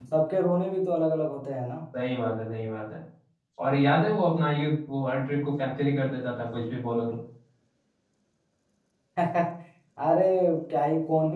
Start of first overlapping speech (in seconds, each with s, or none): none